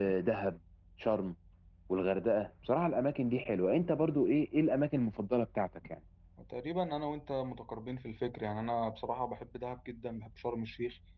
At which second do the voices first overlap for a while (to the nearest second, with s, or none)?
none